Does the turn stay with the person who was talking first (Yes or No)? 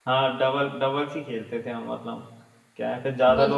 Yes